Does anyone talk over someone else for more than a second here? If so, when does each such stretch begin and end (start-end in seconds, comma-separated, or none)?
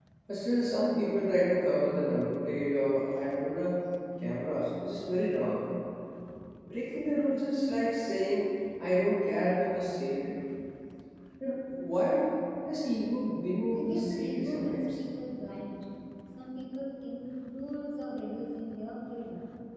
13.7-15.0